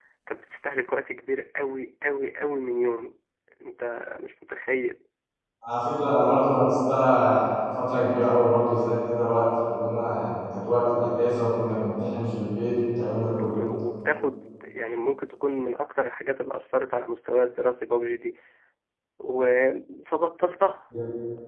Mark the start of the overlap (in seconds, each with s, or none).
none